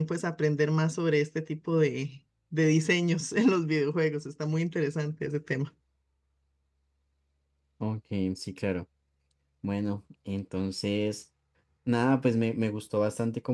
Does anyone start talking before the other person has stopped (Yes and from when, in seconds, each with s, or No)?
No